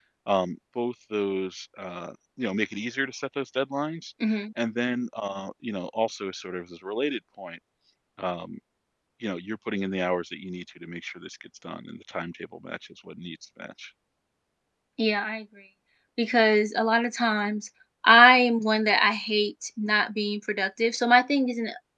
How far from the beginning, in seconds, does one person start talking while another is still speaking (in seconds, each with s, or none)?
none